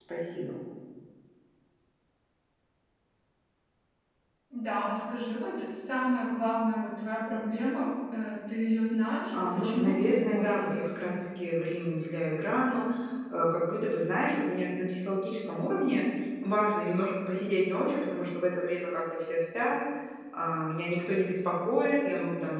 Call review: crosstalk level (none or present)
present